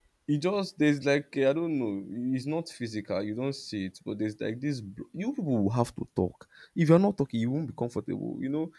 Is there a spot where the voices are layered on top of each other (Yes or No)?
No